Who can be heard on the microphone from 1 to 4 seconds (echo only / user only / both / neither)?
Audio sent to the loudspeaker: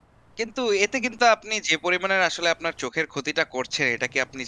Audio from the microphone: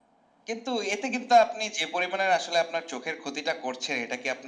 echo only